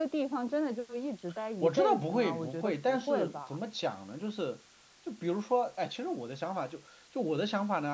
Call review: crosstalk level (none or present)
present